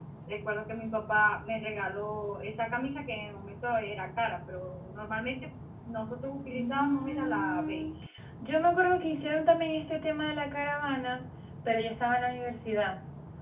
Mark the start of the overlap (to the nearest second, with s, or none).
7 s